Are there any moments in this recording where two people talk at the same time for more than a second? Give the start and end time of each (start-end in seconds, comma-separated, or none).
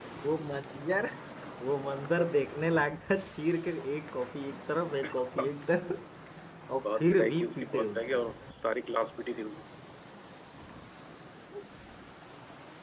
6.8-8.2